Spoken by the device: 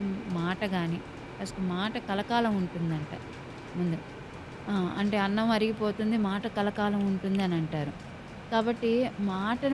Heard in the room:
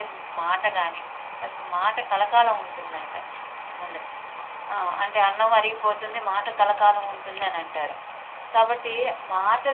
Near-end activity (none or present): none